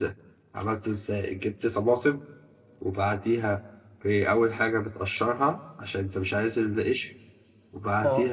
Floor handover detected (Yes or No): No